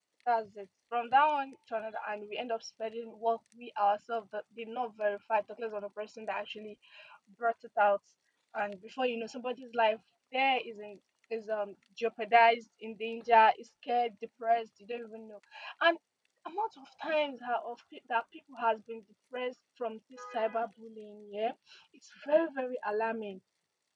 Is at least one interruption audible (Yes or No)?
No